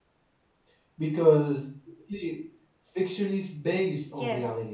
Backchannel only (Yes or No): No